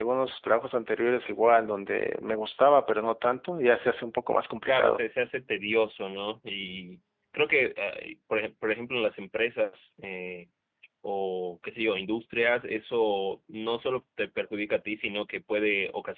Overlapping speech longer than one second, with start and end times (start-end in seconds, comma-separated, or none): none